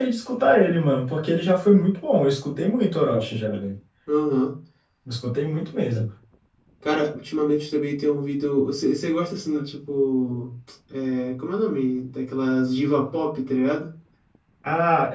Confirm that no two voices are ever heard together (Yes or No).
Yes